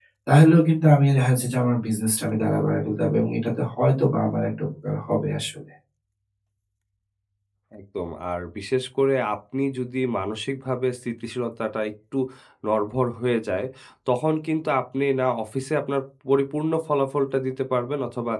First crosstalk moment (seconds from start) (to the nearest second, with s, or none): none